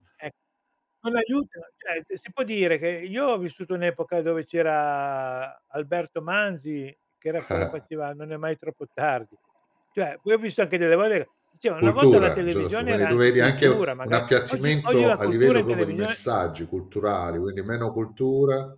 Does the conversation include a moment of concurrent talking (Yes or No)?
Yes